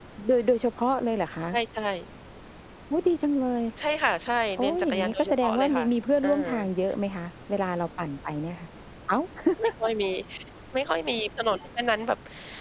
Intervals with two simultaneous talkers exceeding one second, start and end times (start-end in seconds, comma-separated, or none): 4.6-5.8